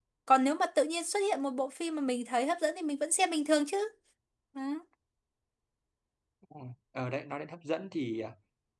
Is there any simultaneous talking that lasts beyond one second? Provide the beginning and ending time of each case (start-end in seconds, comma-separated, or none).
none